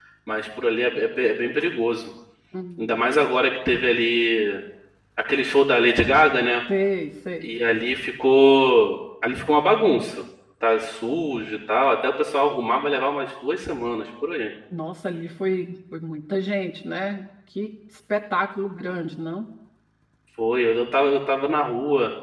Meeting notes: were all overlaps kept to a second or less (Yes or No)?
Yes